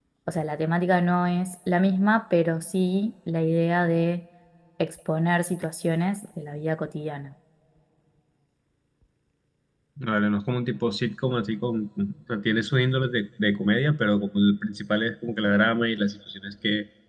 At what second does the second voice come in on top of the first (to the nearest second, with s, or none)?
none